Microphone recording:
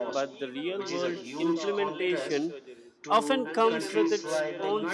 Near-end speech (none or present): present